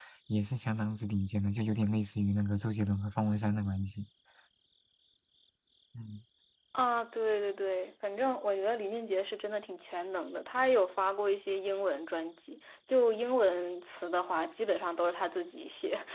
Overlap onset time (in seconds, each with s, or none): none